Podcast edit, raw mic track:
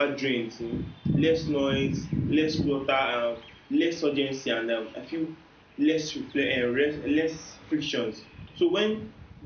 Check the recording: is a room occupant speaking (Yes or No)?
Yes